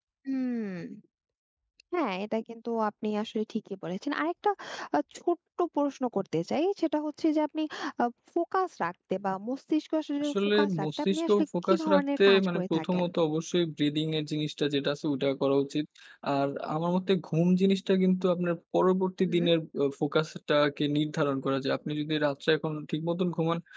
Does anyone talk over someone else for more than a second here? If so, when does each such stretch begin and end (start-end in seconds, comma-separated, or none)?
10.2-13.0